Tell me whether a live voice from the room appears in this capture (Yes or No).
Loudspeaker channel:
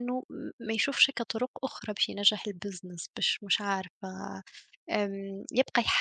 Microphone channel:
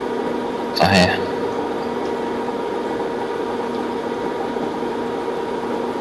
Yes